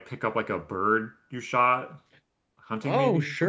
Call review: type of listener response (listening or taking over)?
taking over